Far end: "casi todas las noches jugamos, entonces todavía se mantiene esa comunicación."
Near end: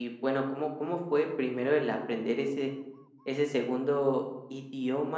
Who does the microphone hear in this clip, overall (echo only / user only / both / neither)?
user only